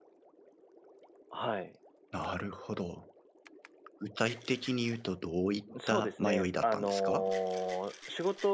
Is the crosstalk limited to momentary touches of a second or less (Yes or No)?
No